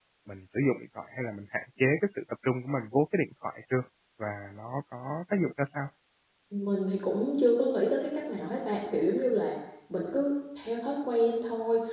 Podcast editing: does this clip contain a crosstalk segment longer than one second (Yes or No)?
No